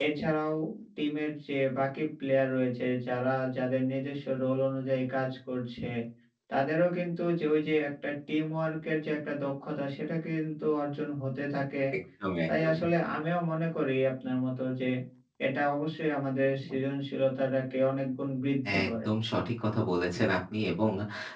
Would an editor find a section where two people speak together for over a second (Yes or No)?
No